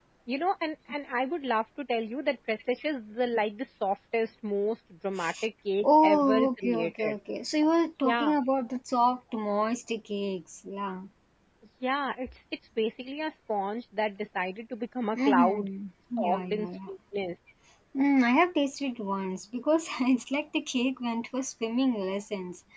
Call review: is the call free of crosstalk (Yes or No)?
No